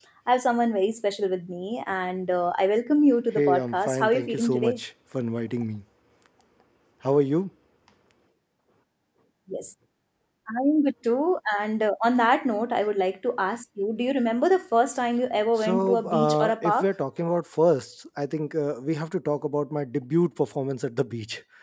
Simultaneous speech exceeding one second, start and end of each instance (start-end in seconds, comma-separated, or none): 3.4-4.8, 15.6-16.9